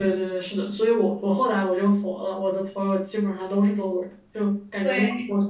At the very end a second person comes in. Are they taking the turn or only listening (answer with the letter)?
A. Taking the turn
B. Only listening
B